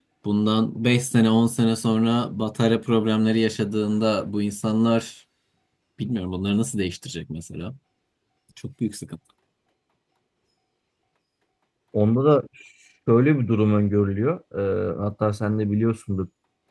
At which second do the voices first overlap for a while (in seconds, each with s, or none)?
none